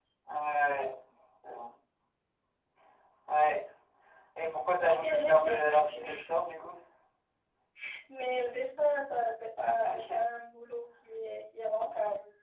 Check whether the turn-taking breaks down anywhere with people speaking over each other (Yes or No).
Yes